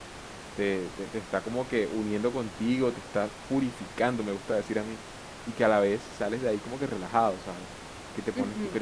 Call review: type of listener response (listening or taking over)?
listening